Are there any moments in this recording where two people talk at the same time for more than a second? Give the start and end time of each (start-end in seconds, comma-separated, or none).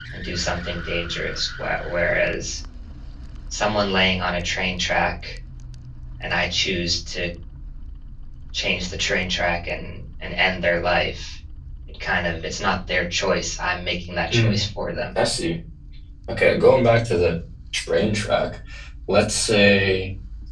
none